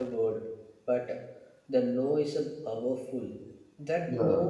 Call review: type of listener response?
listening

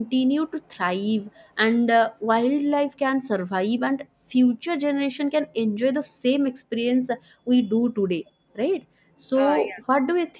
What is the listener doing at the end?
listening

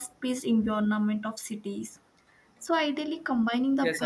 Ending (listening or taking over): listening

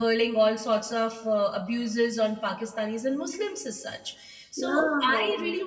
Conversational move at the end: listening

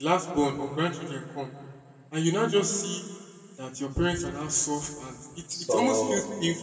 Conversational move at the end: listening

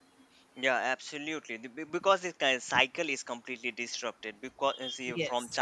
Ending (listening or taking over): listening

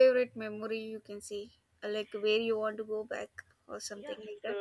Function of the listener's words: taking over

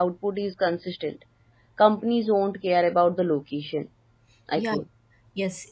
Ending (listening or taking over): taking over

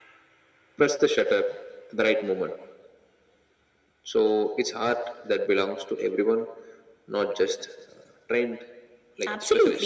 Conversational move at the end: taking over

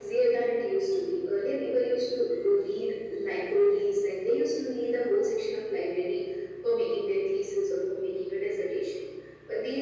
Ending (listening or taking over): listening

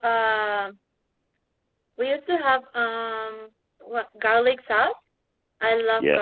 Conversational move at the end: taking over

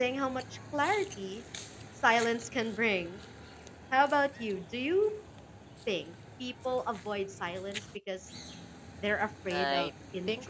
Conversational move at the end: taking over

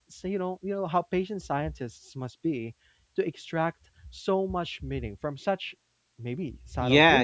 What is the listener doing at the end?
taking over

